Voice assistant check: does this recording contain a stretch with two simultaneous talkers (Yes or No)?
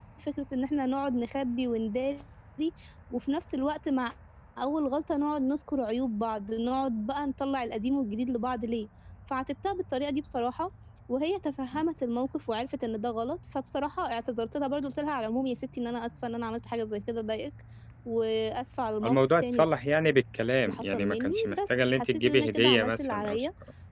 Yes